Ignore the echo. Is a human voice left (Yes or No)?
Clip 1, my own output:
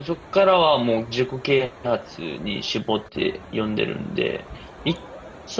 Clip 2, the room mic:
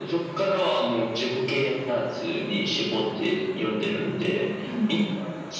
Yes